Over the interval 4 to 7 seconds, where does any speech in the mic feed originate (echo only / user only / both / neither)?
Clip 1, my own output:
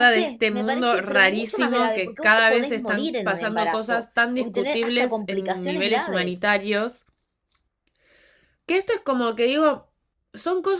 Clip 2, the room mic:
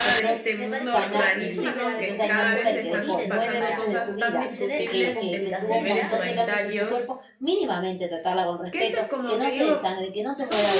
both